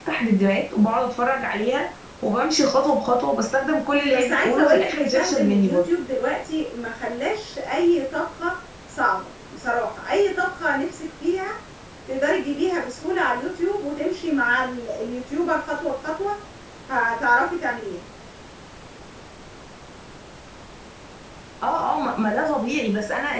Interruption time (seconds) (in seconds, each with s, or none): 4.1 s